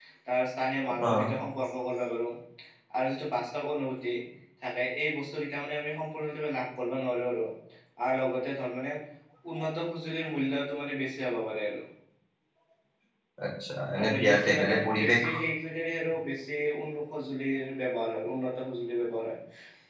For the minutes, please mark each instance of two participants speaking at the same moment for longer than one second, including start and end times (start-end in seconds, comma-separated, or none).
14.0-15.2